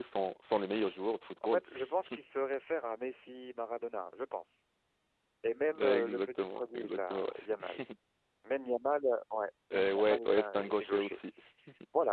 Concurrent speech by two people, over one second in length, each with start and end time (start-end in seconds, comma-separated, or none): 5.8-7.3, 9.7-11.2